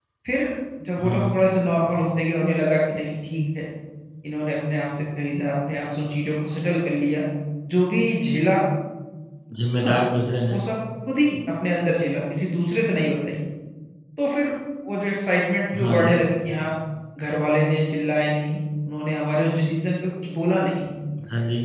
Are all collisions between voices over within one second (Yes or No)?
Yes